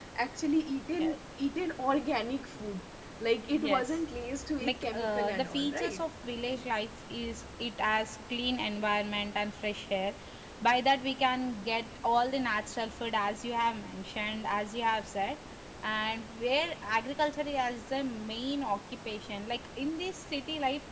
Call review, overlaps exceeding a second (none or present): present